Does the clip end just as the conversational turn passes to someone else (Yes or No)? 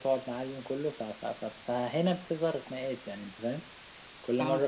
No